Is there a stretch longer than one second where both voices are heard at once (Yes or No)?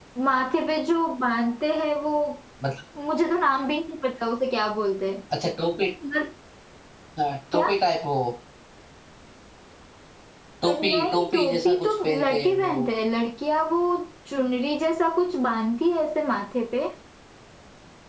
Yes